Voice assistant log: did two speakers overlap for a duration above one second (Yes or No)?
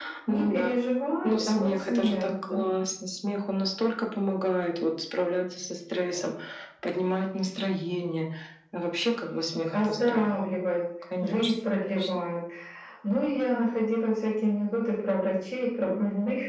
Yes